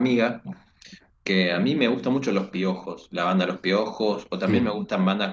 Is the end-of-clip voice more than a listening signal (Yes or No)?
No